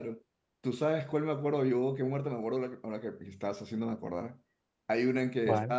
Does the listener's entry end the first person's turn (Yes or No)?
No